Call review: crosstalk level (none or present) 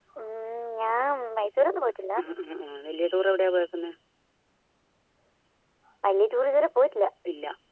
none